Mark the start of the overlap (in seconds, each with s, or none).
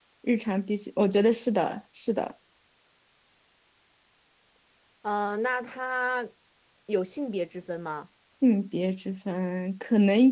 none